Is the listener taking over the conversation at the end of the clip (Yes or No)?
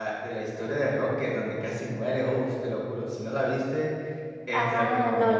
Yes